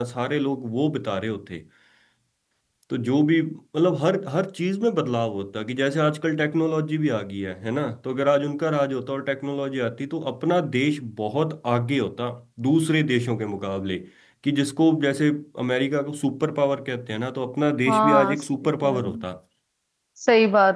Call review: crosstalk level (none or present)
present